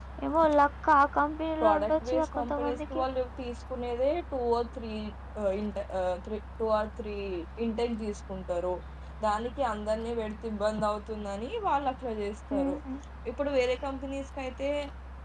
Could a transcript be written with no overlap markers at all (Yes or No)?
No